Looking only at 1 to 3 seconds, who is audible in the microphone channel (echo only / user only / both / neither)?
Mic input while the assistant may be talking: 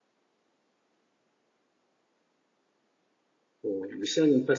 neither